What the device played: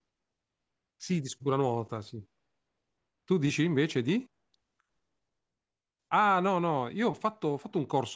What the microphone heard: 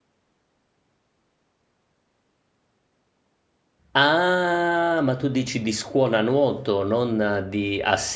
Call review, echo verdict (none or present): none